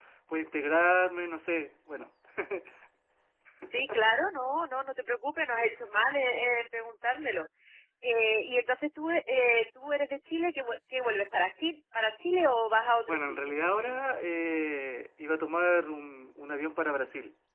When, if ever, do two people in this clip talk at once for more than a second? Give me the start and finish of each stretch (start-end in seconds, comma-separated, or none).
none